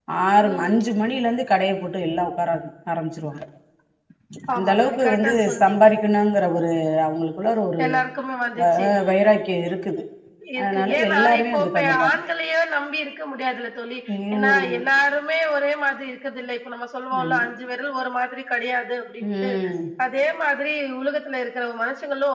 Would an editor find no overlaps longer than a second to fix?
No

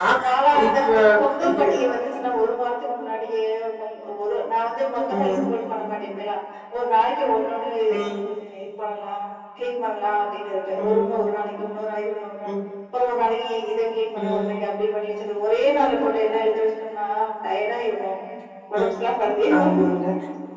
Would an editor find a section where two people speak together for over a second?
No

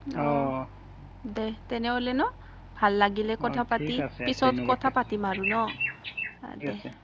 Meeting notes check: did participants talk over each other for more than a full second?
Yes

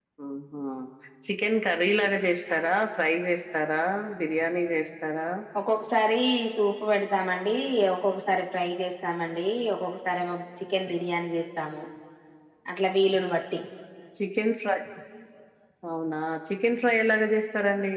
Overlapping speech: No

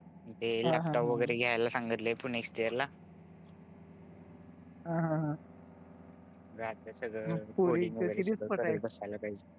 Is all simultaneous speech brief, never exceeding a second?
No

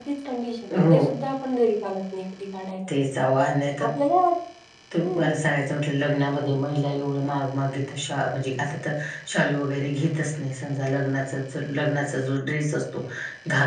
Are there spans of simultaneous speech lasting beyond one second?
No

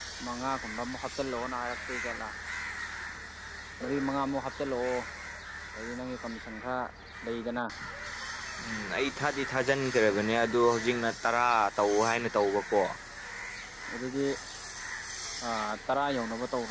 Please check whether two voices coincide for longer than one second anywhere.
No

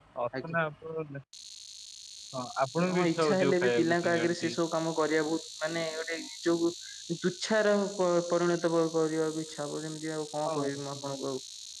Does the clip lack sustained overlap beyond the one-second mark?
No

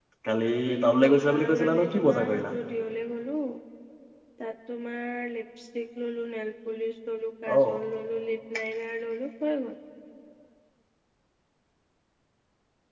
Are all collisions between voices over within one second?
No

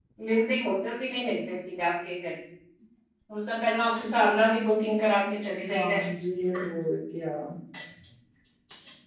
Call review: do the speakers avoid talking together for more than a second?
Yes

